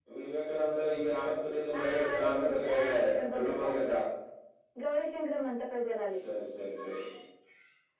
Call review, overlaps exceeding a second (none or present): present